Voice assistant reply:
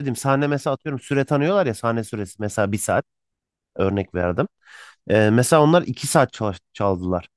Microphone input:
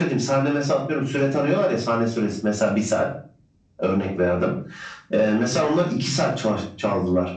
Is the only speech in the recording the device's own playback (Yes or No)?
Yes